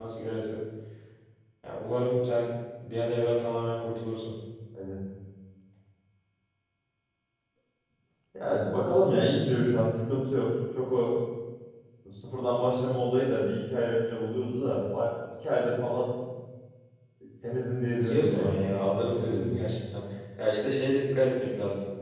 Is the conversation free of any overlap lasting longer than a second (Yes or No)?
No